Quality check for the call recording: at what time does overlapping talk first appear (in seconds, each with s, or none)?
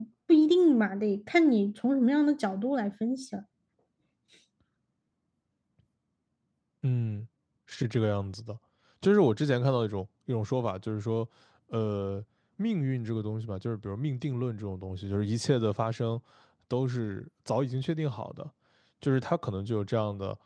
none